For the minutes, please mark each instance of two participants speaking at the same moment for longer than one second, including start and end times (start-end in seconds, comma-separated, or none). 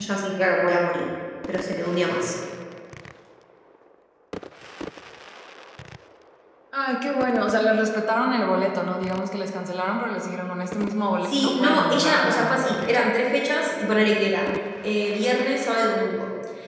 11.2-13.0